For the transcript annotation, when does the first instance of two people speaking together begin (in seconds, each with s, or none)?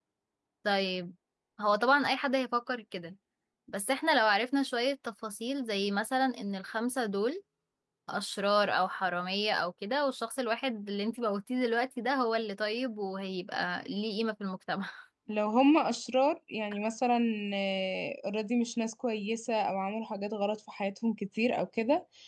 none